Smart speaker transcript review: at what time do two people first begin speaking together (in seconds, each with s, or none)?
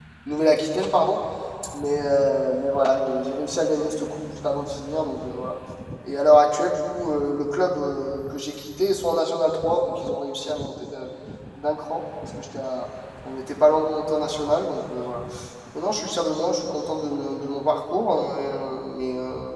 none